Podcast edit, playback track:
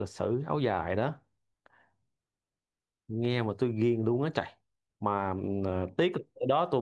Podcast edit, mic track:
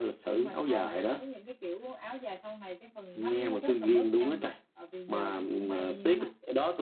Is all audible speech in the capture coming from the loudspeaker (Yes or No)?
No